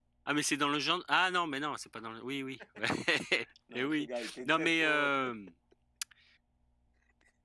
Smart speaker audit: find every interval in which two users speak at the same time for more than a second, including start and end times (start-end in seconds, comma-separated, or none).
3.7-5.1